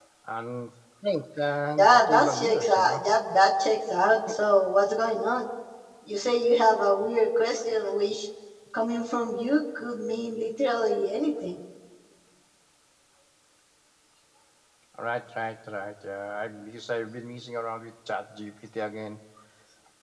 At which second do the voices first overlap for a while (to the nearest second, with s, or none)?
2 s